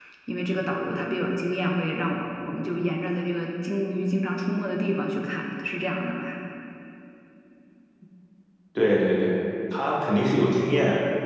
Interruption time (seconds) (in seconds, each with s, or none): none